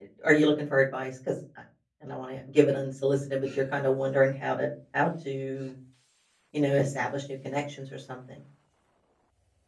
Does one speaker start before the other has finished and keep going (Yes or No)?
No